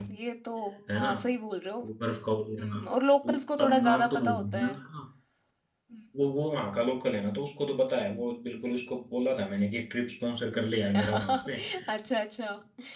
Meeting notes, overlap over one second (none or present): present